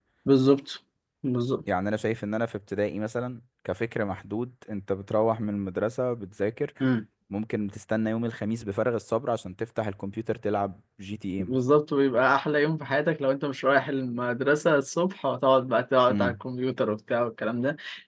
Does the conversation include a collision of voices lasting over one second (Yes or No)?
No